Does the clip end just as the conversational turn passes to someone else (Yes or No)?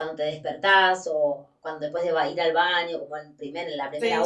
Yes